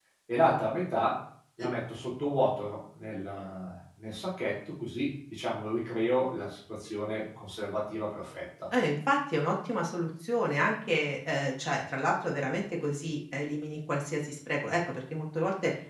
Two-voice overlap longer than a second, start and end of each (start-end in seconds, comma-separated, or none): none